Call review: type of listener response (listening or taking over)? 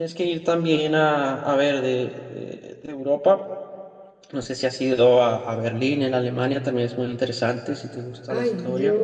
taking over